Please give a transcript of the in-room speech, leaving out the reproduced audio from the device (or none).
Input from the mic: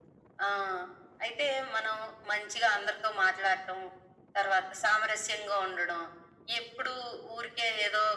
none